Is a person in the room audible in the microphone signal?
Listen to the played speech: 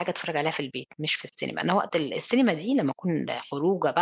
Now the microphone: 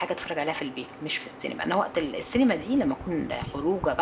No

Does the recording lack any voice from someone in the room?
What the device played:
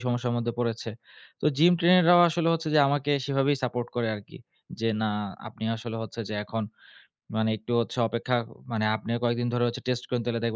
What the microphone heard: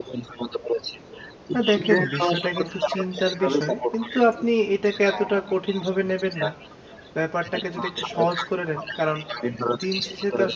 No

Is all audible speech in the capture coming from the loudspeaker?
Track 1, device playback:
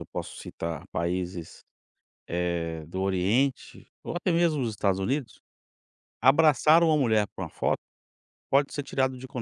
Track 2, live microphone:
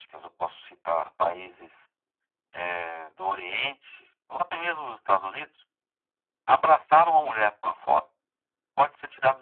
Yes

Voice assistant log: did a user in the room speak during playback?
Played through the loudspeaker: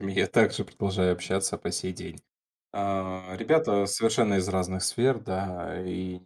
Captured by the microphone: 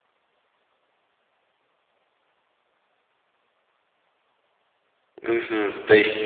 Yes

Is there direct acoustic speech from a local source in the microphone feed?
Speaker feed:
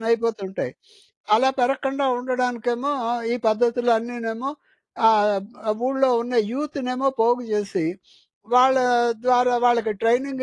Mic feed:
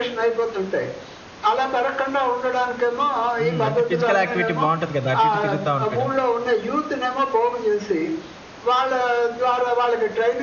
Yes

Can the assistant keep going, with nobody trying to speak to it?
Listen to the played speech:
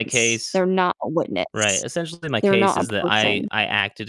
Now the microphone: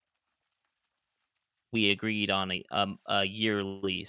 No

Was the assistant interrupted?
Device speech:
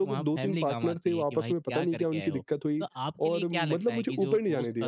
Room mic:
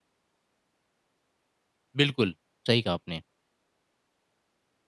Yes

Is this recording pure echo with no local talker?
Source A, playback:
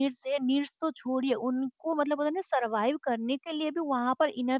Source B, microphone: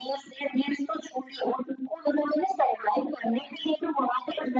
Yes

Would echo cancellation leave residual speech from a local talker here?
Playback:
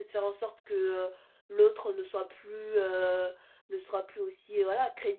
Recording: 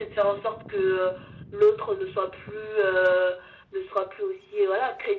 No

